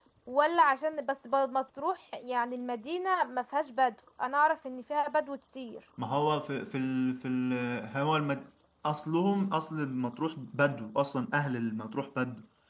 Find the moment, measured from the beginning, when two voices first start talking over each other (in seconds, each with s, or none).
none